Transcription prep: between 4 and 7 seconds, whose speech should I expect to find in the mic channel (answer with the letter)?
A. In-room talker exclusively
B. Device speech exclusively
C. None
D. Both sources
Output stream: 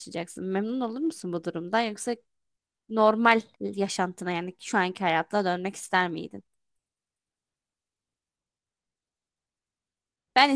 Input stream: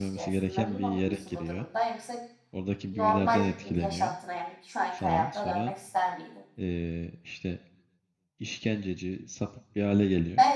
D